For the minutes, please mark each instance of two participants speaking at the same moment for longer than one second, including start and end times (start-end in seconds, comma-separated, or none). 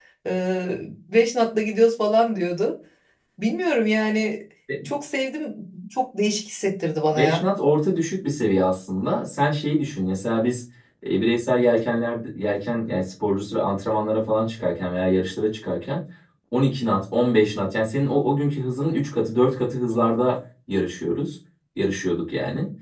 none